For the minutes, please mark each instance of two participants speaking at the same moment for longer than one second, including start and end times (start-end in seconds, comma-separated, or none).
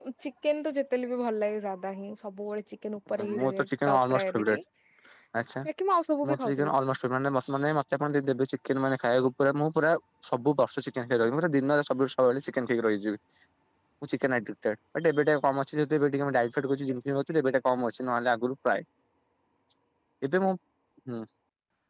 3.2-4.6